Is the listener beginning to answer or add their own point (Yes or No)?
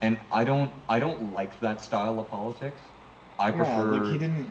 Yes